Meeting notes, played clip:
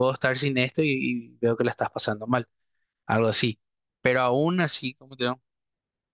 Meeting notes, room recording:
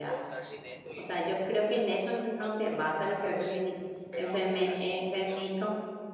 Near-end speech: present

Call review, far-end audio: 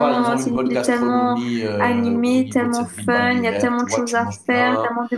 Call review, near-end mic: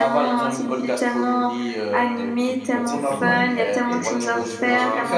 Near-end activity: present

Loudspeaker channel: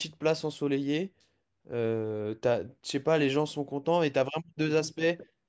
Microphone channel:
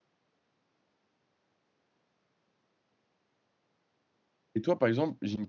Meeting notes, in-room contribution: present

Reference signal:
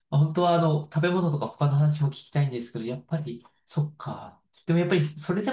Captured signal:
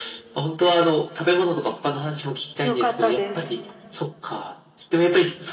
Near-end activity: present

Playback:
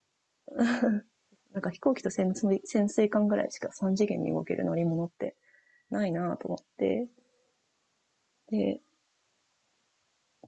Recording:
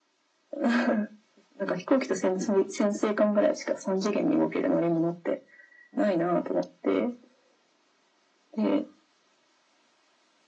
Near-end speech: present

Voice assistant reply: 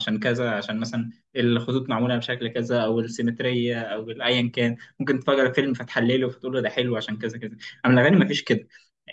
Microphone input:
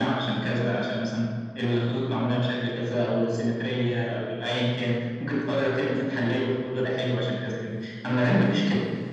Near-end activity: none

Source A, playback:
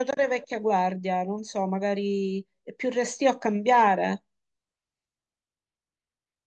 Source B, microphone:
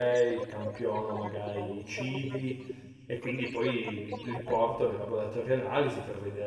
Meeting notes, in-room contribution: present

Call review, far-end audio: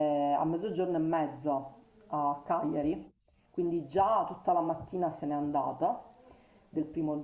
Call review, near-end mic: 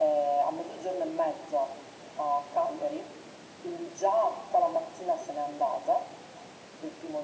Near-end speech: none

